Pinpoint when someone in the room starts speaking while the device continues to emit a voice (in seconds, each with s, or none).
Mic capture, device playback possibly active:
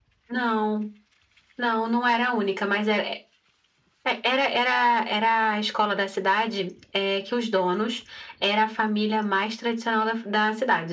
none